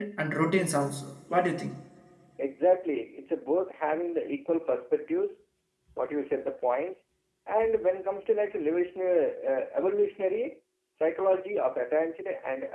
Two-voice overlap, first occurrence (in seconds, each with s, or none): none